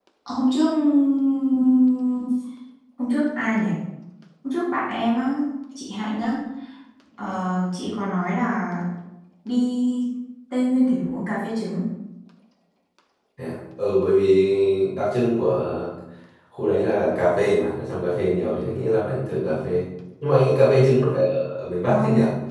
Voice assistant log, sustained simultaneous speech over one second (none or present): none